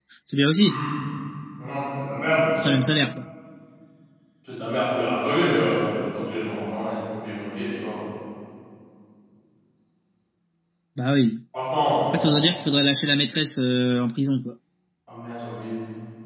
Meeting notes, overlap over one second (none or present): none